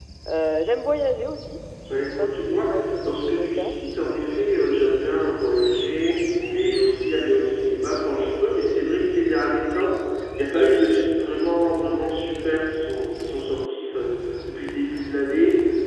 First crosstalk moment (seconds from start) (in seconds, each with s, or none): 1.7 s